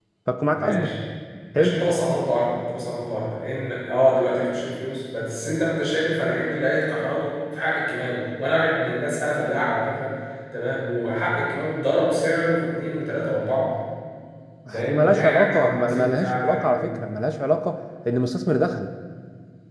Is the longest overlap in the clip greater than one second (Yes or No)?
Yes